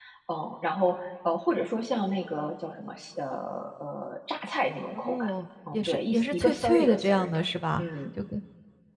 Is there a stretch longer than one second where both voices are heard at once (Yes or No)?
Yes